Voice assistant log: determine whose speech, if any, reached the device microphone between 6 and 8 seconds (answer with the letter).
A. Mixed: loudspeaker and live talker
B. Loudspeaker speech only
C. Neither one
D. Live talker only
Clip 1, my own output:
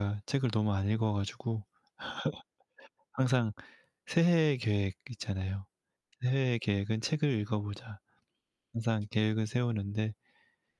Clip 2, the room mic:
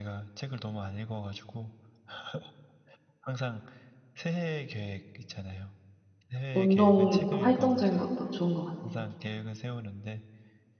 A